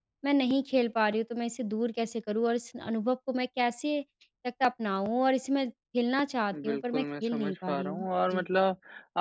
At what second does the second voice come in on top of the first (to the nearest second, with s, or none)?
7 s